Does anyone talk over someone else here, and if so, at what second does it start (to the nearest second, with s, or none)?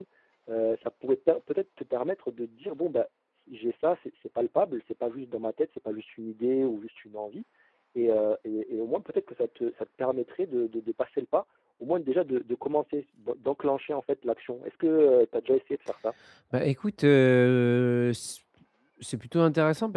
none